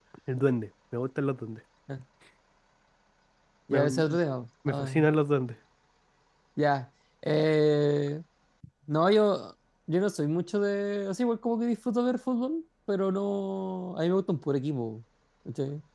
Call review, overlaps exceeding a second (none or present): none